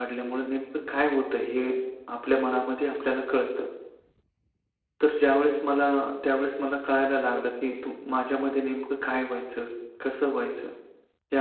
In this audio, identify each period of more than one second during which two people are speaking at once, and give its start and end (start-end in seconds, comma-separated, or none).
none